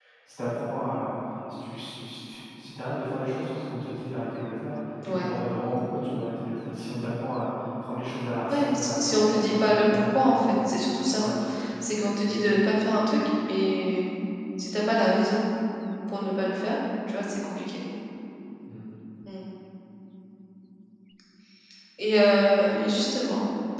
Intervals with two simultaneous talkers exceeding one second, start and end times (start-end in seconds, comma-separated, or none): 8.5-10.1